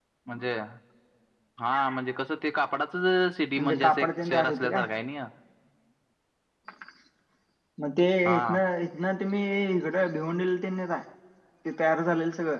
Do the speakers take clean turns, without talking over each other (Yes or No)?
No